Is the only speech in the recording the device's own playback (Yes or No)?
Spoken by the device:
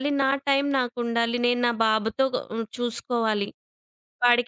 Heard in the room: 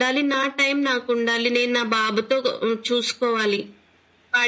Yes